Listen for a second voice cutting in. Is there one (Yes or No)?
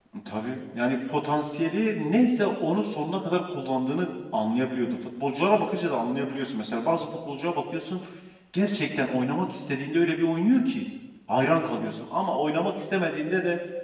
No